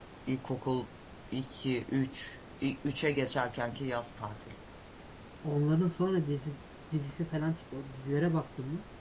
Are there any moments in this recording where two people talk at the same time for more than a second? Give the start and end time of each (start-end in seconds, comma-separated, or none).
none